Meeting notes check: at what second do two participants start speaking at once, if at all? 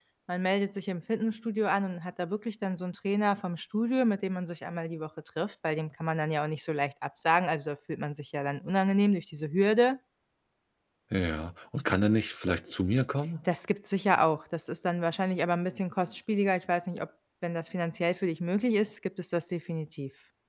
none

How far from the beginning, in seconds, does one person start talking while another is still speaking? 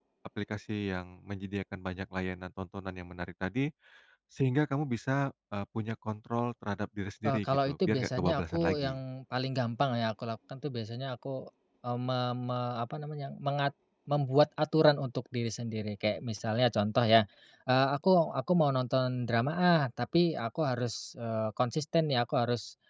7.2 s

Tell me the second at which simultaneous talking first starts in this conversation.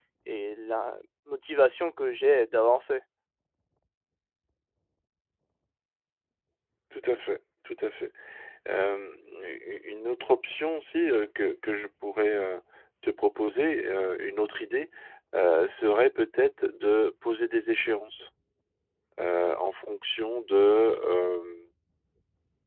none

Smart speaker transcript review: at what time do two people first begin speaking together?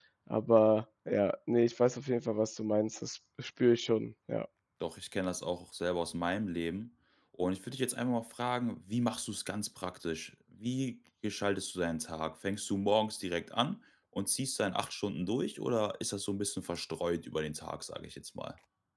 none

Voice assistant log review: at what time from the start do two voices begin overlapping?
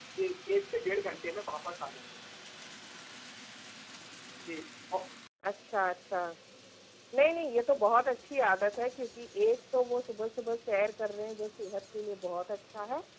none

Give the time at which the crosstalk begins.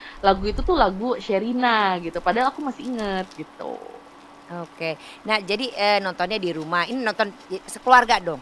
none

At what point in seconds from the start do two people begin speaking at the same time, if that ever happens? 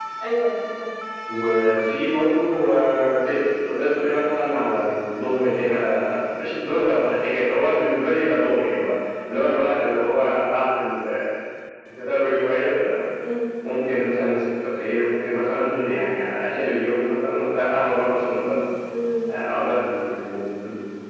none

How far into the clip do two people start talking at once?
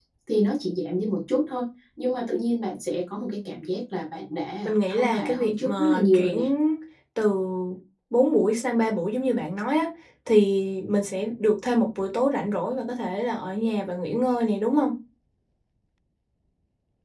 4.7 s

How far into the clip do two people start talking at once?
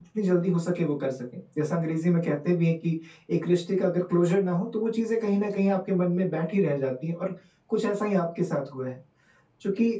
none

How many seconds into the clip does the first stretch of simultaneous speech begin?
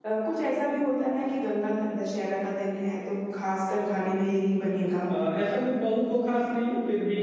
none

